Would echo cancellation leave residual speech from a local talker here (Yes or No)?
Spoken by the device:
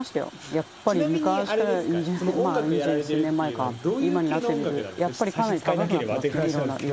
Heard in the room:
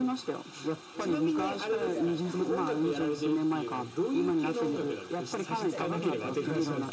Yes